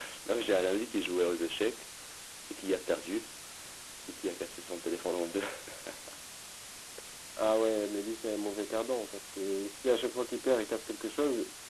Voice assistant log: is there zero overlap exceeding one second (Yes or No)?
Yes